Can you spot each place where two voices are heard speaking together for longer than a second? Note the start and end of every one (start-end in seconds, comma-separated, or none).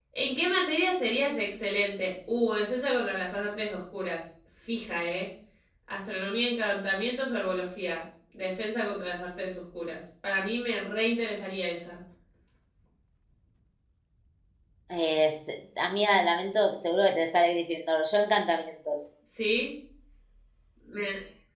none